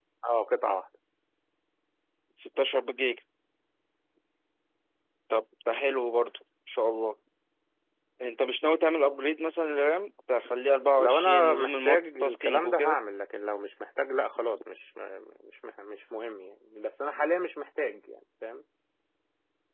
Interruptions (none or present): present